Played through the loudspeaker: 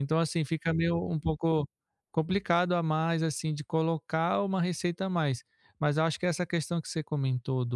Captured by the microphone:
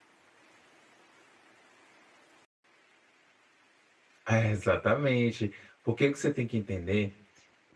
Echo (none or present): none